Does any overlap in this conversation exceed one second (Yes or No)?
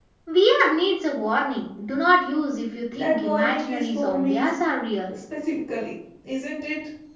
Yes